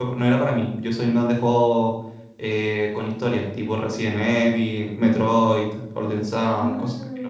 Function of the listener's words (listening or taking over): taking over